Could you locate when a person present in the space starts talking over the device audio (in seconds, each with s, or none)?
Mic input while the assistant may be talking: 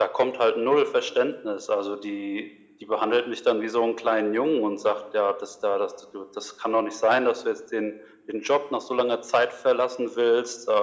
none